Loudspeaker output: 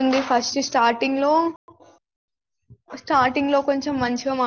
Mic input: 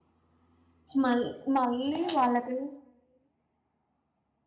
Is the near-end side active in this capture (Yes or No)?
Yes